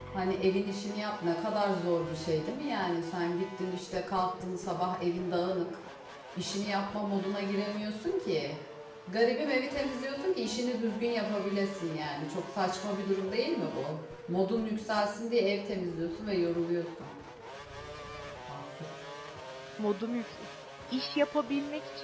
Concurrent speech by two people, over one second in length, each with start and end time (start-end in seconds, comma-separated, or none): none